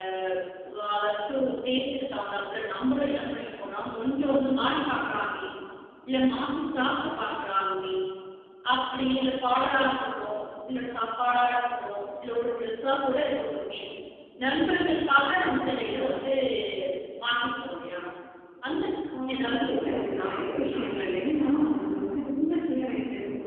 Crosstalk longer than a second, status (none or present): present